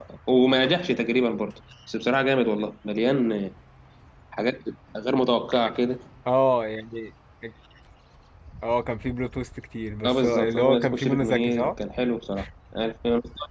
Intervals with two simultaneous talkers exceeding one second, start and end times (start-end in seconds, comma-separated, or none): 10.0-11.7